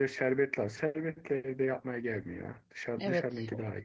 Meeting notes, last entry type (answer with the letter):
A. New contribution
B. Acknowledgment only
A